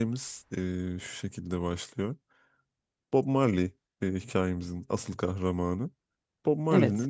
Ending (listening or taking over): listening